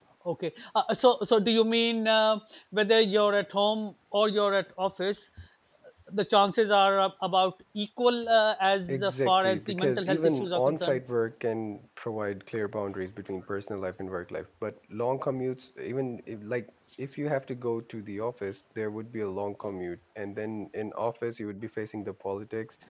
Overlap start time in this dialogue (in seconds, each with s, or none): 8.8 s